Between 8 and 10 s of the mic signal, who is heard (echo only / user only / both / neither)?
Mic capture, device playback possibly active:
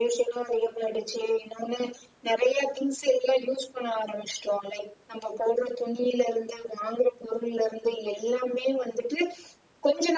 echo only